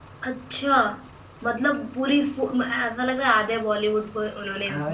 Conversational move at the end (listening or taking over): taking over